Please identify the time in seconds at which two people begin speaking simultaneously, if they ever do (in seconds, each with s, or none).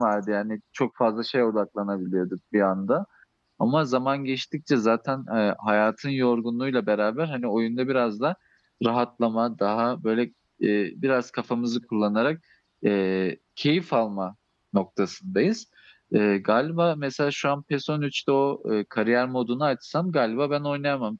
none